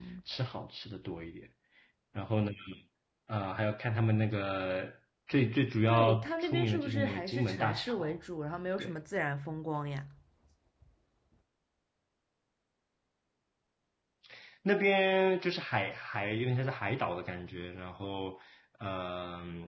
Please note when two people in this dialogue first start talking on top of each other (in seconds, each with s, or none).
5.9 s